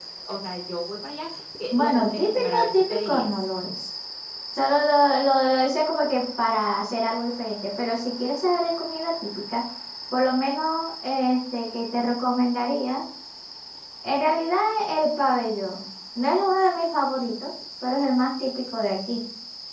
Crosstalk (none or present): present